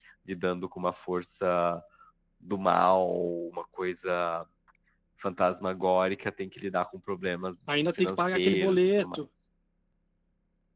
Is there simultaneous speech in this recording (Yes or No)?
Yes